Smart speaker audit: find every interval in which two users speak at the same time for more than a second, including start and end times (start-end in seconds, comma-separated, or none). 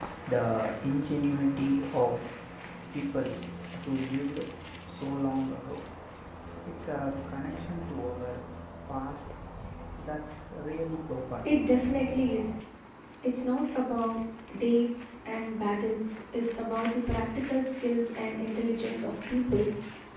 none